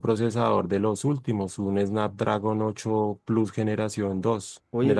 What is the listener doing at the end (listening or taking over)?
taking over